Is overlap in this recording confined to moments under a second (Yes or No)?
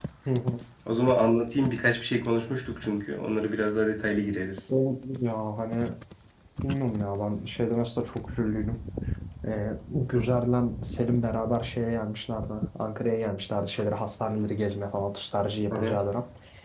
Yes